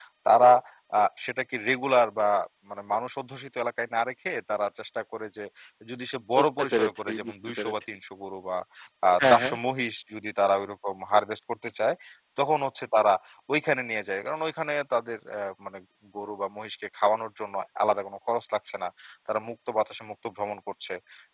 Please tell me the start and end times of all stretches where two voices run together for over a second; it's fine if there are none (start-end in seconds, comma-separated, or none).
6.4-7.7